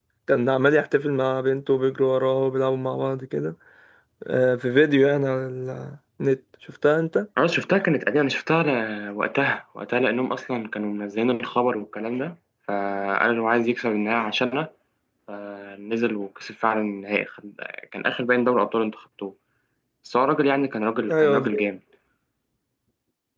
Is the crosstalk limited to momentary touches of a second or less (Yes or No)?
Yes